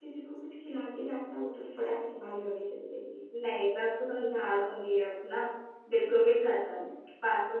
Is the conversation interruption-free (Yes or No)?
Yes